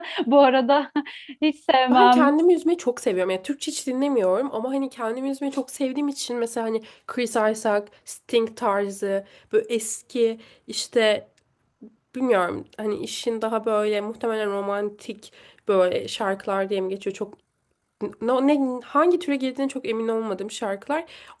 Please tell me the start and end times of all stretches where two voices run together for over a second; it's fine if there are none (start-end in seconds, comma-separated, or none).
none